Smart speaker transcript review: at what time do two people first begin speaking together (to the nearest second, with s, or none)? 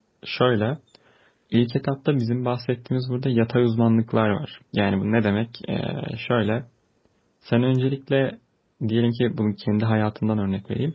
none